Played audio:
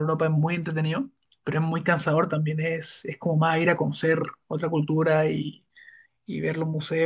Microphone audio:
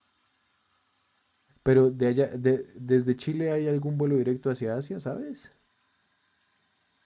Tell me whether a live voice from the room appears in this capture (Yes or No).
Yes